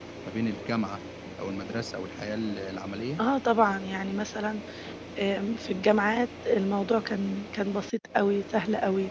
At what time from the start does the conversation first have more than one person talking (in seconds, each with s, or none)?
none